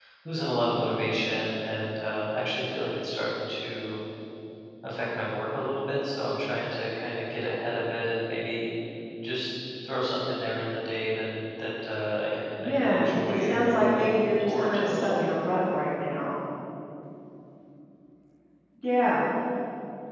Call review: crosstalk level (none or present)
present